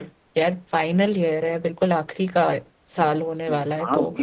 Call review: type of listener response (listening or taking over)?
taking over